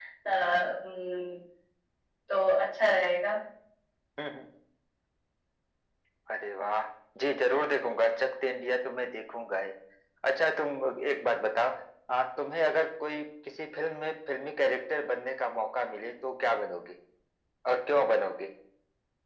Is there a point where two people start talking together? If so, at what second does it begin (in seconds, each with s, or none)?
none